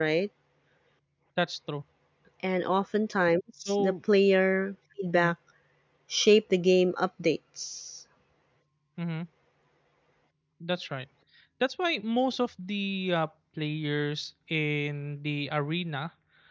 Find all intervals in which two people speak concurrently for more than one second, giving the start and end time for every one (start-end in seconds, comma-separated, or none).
none